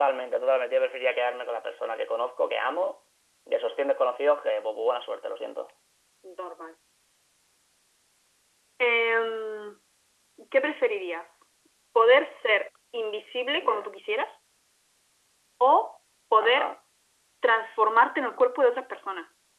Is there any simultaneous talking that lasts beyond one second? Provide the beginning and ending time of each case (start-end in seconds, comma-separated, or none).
none